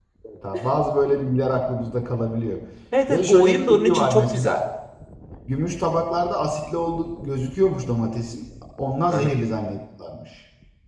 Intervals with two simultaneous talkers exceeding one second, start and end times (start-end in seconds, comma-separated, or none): 3.1-4.6